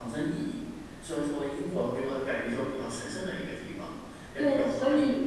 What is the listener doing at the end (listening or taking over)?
taking over